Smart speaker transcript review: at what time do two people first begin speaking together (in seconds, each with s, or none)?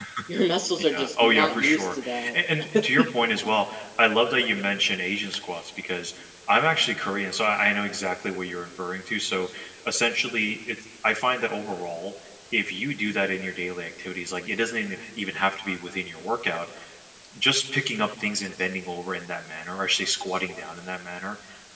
0.9 s